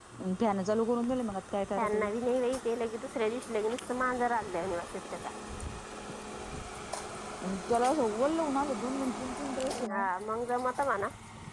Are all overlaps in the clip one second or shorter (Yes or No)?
Yes